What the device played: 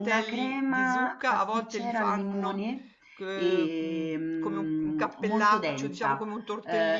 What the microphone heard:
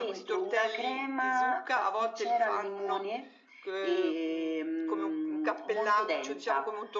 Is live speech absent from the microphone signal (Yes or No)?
Yes